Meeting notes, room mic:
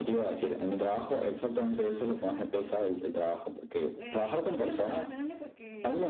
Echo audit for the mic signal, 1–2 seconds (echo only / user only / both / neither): both